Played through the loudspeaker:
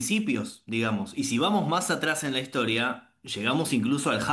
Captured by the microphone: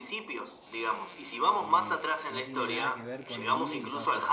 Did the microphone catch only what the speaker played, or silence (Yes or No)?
No